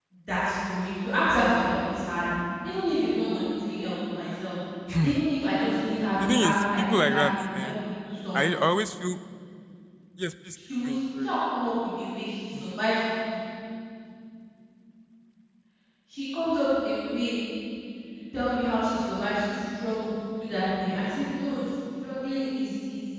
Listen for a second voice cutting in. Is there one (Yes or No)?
Yes